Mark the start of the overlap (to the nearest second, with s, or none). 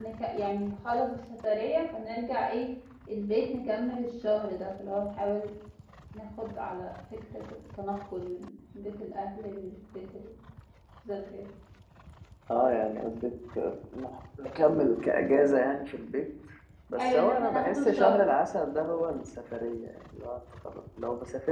17 s